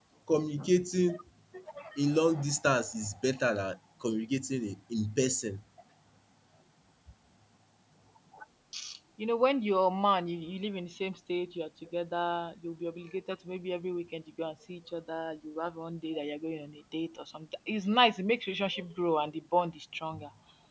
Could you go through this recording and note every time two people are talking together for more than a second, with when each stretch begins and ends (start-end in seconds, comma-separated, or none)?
none